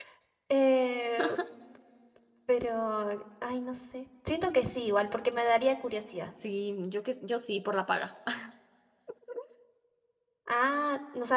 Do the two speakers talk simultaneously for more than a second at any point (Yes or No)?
No